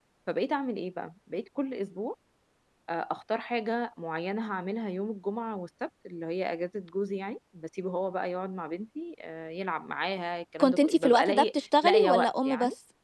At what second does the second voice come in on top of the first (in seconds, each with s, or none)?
10.6 s